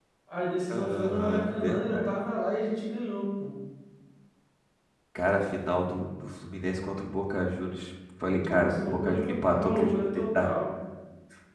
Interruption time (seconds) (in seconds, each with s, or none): 0.7 s